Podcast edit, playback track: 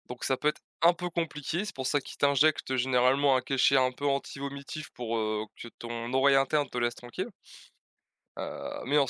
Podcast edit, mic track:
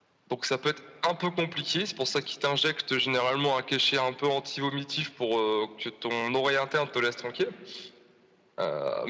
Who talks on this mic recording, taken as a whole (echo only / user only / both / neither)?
echo only